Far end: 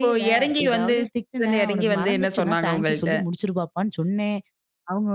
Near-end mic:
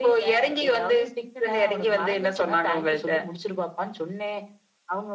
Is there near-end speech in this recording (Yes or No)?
No